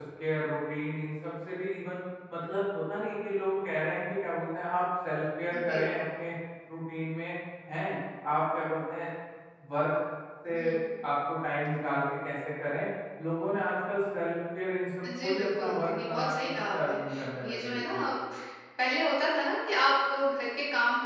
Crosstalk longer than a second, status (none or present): present